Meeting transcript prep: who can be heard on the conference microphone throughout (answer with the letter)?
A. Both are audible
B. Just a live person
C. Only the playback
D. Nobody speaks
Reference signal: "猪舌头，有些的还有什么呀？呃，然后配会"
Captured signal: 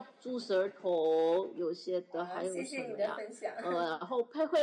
A